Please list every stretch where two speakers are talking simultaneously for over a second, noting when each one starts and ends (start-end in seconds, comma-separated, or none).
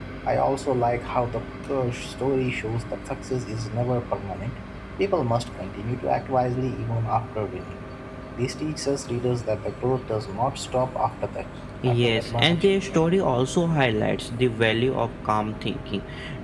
11.9-13.1